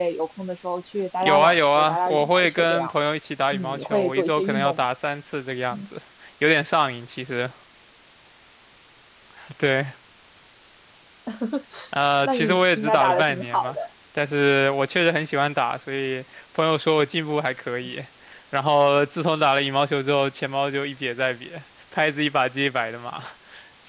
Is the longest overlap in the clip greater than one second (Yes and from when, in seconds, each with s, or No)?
Yes, from 1.2 s